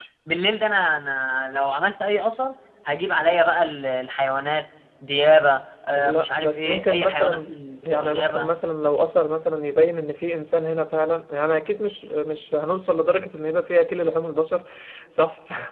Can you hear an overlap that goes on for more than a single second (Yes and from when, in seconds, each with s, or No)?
Yes, from 6.0 s